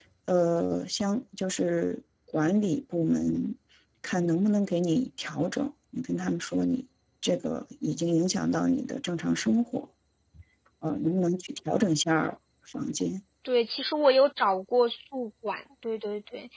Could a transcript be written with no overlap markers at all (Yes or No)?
Yes